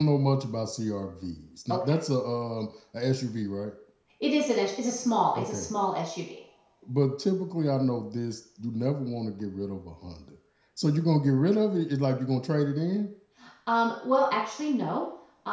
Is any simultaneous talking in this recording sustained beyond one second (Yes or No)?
No